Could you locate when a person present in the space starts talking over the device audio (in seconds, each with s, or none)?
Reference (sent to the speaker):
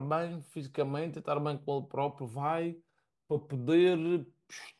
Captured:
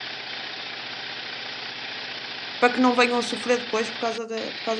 2.6 s